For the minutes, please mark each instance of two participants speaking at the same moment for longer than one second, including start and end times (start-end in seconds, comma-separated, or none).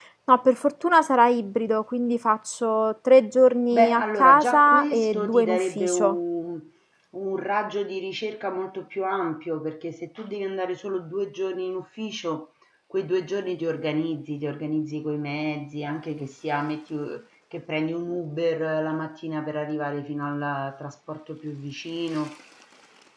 3.7-6.2